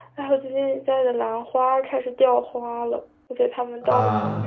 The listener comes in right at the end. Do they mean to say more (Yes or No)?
No